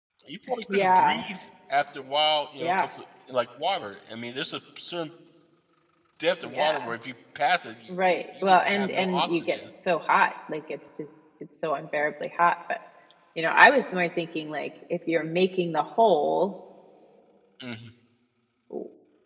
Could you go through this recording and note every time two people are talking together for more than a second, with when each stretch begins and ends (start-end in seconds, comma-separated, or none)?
8.1-9.6